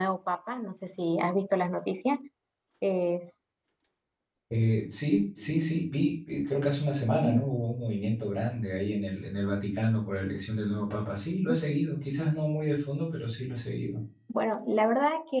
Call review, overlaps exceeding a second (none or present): none